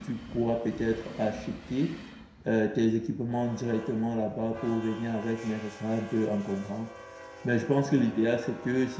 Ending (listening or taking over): listening